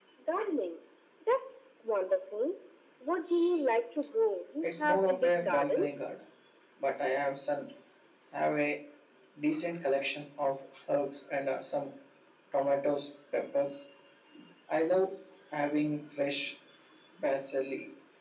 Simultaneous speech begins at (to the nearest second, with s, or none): 5 s